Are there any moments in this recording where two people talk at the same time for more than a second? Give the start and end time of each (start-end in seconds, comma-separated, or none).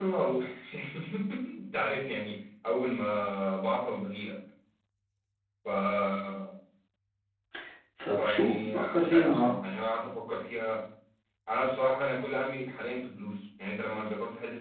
8.2-9.6